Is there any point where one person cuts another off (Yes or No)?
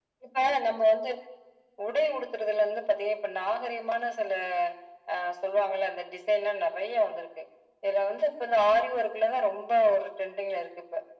No